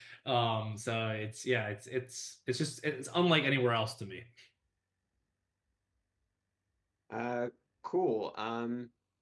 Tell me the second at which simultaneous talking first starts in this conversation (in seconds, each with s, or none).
none